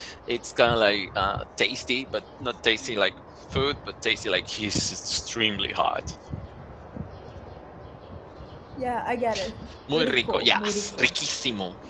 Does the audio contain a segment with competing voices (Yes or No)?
Yes